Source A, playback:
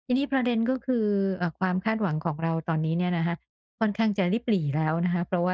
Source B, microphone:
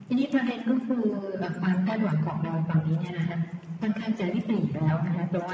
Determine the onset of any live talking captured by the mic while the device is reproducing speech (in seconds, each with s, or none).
none